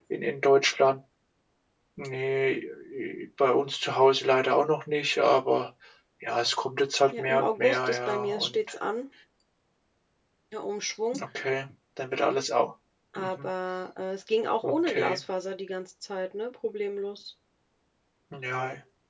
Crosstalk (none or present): present